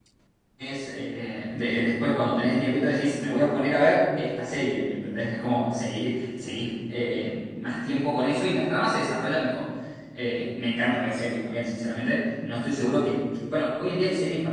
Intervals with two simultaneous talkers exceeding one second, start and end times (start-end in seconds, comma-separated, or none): none